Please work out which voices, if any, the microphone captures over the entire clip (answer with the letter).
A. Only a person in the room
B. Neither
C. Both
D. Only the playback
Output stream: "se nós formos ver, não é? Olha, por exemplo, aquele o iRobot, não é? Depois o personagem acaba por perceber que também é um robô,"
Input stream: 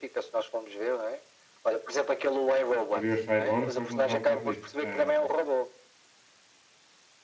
C